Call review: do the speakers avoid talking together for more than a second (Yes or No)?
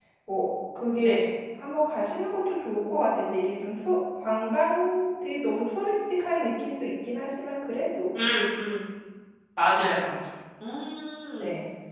Yes